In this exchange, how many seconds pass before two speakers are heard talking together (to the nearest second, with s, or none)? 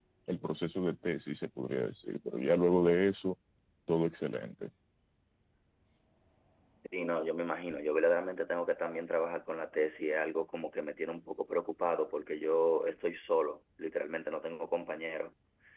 none